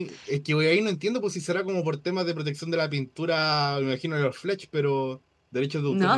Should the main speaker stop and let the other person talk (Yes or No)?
Yes